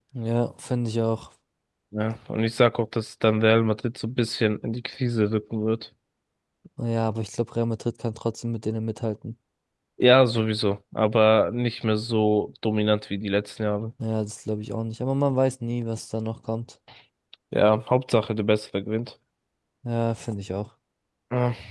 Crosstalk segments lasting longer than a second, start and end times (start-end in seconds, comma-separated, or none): none